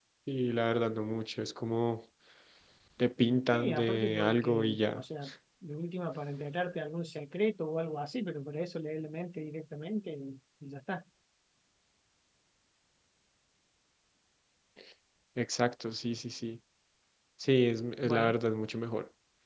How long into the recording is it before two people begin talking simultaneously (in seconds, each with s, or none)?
3.5 s